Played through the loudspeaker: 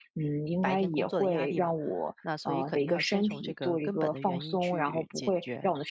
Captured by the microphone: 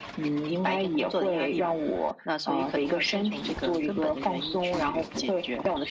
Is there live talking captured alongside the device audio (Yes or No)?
No